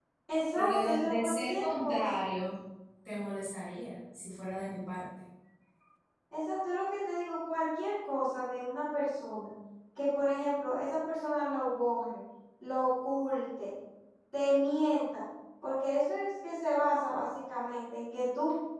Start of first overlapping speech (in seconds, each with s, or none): 0.6 s